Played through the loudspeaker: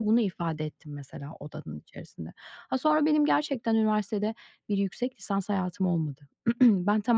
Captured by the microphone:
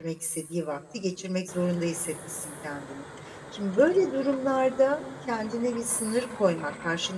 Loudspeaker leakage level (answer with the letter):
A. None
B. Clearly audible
A